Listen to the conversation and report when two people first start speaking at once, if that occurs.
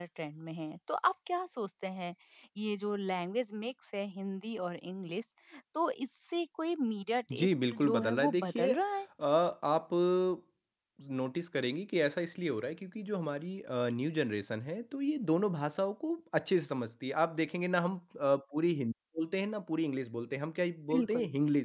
7.3 s

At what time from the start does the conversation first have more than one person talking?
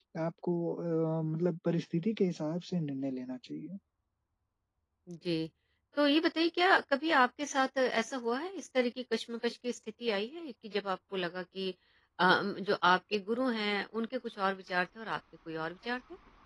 none

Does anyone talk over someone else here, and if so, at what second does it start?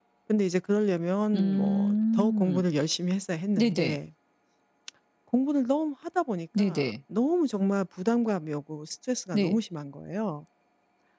1.3 s

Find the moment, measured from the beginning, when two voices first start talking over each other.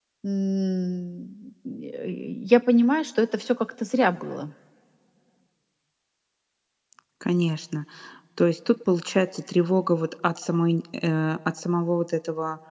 none

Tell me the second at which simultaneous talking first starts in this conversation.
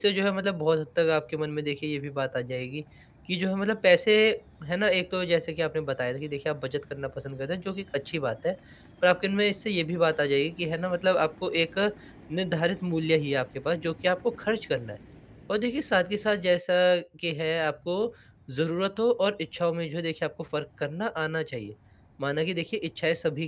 none

